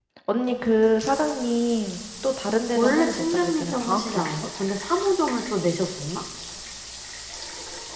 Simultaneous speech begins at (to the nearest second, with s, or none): 3 s